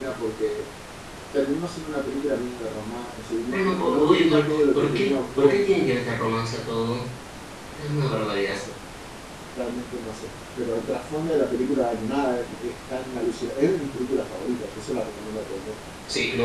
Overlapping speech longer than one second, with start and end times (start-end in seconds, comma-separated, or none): 3.5-5.8